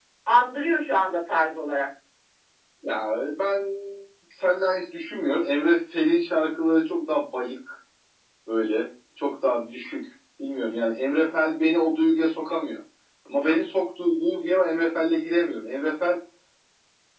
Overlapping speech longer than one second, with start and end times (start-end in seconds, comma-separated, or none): none